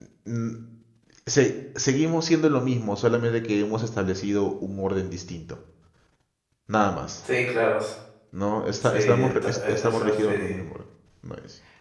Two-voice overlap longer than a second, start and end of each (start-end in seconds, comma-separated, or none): 8.8-10.3